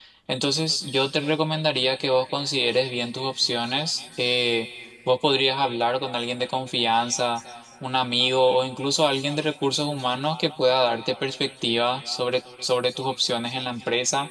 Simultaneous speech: No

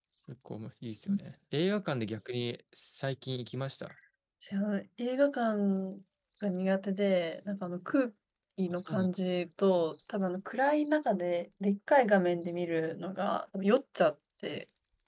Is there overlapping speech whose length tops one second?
No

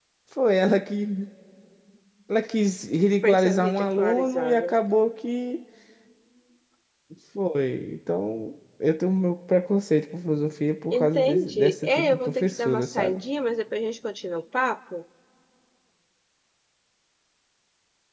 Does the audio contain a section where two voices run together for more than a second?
Yes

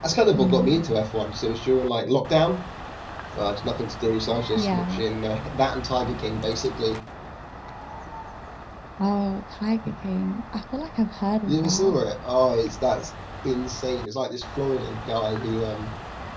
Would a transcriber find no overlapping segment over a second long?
Yes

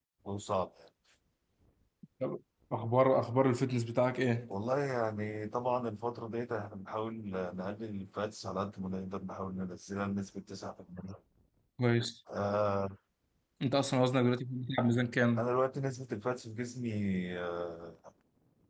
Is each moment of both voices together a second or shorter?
Yes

